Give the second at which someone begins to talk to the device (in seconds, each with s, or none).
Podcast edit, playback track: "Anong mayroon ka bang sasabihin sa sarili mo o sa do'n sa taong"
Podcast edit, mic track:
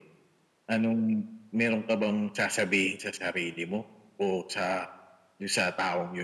none